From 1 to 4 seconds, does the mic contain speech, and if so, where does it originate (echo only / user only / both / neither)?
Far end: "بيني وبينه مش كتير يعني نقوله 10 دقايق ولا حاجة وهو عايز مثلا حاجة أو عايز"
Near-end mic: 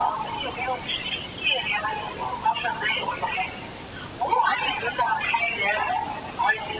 echo only